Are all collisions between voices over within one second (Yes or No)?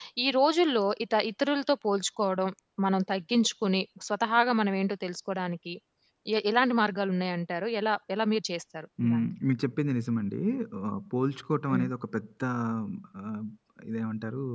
Yes